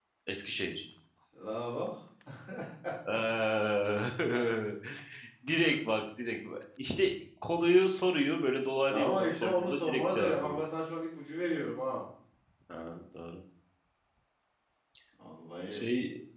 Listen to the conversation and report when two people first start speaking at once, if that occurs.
9 s

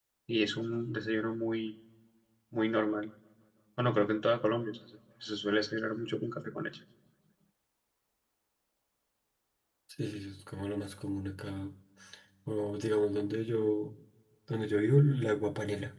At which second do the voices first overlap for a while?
none

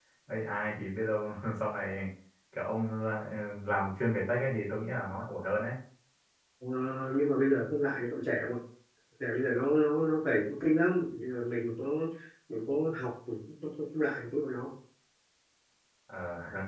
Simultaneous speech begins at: none

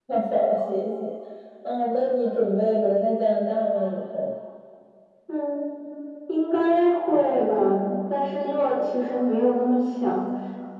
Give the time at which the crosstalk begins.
none

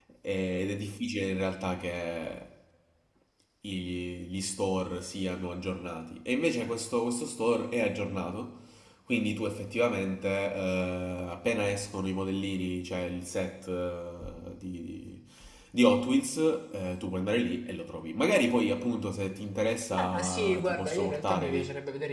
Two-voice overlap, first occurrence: 20 s

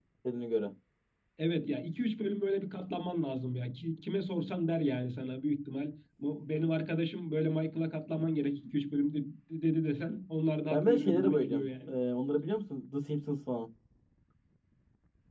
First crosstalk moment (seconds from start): 11 s

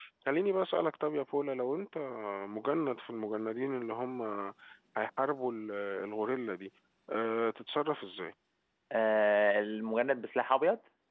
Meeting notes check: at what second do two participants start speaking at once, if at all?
none

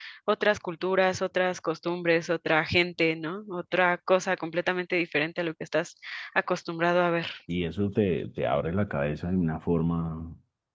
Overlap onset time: none

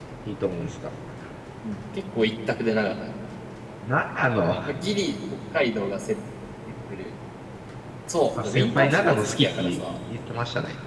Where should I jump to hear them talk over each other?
8 s

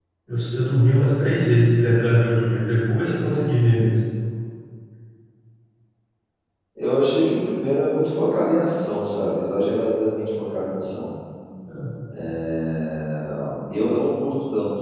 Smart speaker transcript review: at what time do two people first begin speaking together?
none

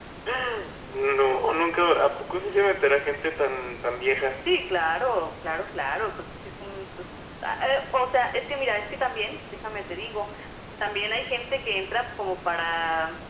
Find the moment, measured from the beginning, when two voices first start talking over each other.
none

